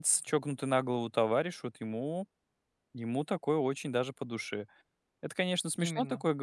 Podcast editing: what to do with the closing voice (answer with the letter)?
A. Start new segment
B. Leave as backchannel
B